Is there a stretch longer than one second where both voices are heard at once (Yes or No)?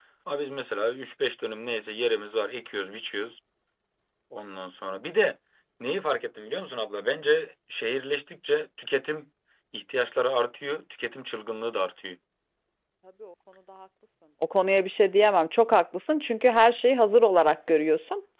No